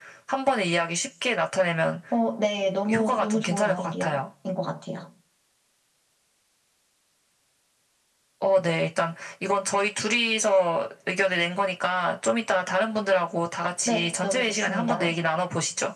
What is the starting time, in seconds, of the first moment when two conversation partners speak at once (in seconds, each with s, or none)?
2.9 s